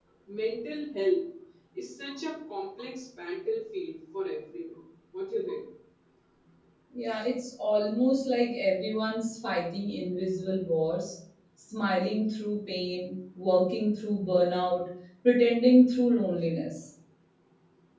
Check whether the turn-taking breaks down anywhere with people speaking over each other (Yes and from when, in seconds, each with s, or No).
No